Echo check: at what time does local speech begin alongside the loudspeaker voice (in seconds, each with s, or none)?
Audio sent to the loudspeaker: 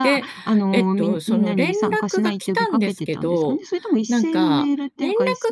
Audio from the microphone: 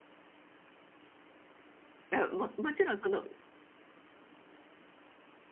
2.1 s